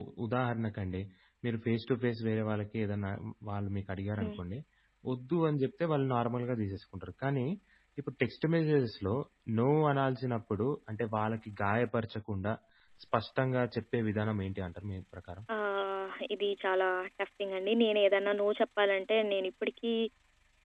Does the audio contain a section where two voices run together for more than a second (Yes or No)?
No